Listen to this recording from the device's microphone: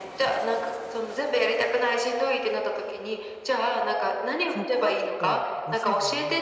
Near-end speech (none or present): present